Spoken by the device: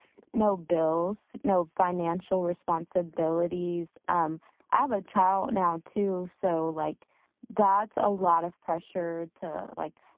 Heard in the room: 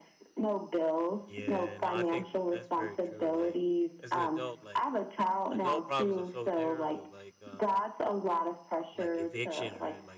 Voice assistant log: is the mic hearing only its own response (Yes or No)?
No